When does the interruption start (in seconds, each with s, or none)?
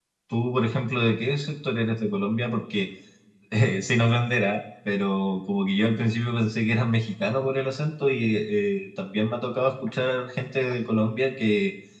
none